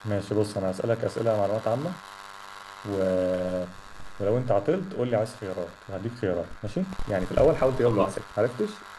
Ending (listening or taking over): listening